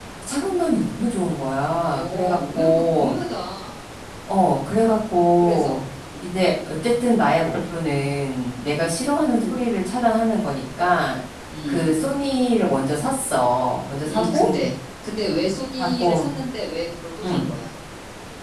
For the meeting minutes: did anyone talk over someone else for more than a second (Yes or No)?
Yes